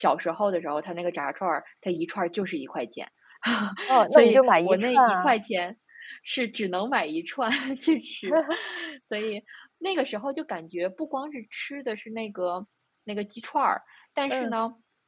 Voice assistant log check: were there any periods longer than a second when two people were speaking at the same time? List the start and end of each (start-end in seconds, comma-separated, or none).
4.1-5.3